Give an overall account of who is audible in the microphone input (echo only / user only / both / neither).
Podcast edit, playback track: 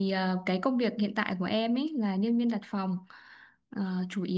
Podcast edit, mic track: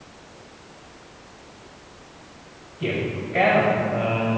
user only